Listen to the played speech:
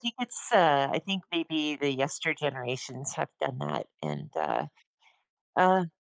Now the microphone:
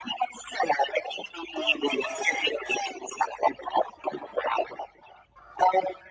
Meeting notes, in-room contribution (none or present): none